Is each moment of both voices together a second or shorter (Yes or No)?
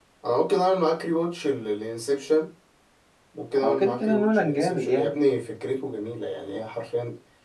No